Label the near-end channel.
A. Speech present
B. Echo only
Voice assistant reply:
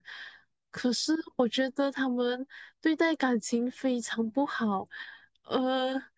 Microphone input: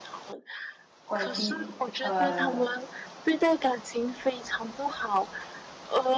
A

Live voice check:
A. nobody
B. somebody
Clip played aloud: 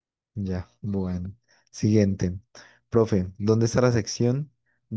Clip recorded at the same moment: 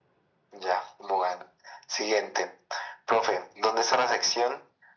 A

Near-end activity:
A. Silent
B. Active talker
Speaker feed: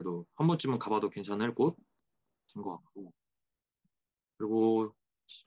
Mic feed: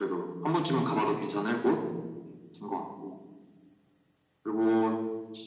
A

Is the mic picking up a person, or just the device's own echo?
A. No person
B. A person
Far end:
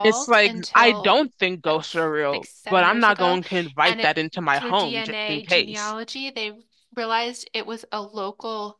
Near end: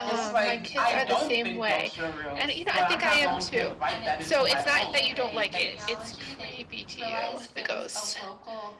B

